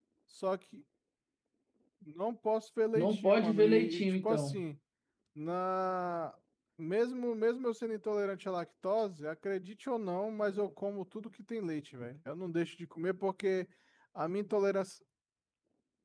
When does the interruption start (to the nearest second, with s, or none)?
3 s